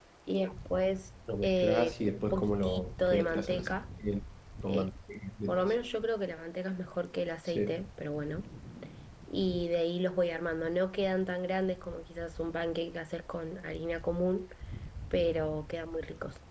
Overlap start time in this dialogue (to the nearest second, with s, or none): 1 s